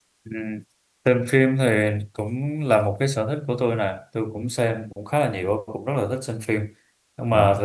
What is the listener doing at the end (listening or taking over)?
listening